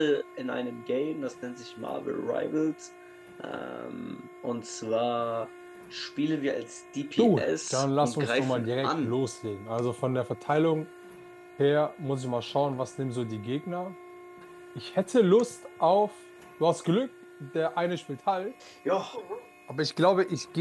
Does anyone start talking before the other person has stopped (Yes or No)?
Yes